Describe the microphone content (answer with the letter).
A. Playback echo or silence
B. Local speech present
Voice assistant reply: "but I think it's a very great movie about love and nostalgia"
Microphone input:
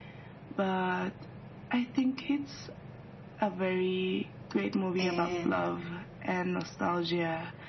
B